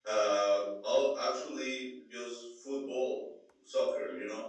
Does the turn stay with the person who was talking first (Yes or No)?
Yes